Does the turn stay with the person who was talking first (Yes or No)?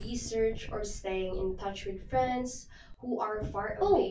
No